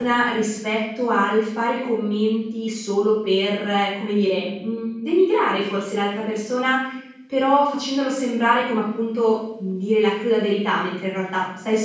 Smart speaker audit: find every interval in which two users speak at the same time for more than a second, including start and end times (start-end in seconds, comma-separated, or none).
none